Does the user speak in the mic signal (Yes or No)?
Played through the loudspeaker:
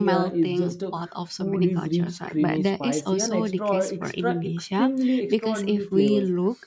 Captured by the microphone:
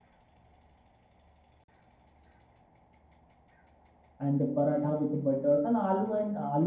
Yes